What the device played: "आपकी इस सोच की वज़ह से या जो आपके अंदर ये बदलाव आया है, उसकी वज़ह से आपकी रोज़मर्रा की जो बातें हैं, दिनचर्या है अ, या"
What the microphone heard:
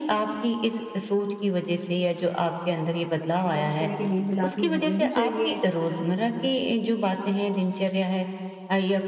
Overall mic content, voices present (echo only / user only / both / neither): both